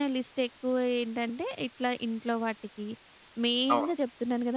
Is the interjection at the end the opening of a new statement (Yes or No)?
No